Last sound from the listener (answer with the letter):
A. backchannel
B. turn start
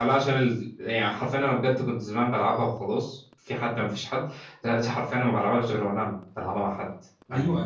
B